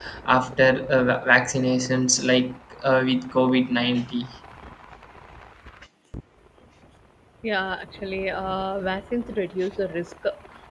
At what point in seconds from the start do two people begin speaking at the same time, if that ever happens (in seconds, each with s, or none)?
none